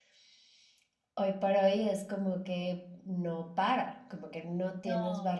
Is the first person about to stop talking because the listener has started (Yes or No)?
No